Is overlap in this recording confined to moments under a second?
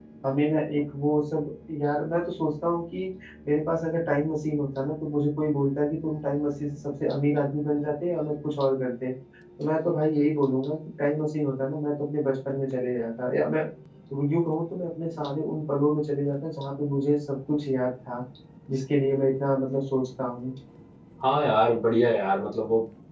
Yes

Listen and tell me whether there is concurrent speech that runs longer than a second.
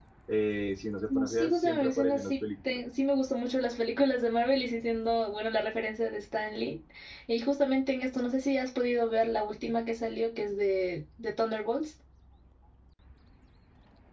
Yes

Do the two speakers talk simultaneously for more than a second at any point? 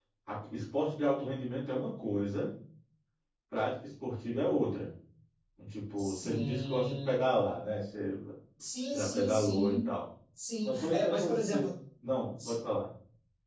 Yes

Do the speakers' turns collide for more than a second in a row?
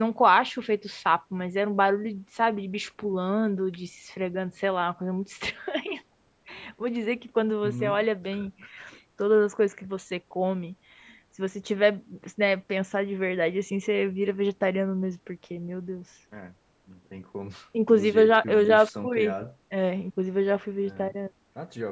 Yes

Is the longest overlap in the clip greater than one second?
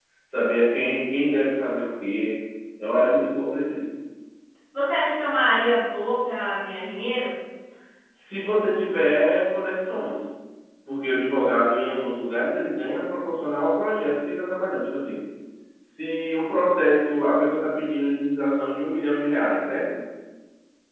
No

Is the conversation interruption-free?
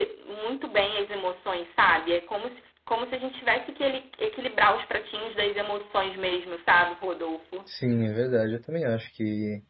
Yes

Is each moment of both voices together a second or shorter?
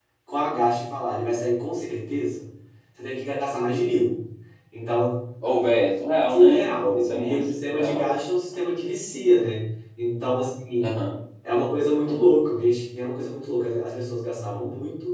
No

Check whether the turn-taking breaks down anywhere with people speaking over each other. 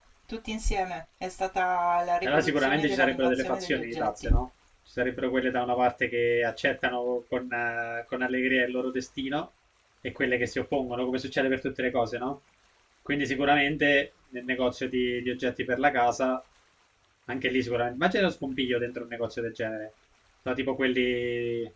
Yes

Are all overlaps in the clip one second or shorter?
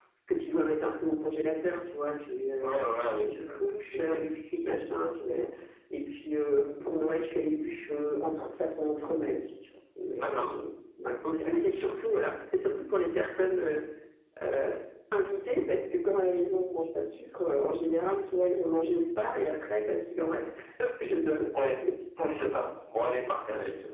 No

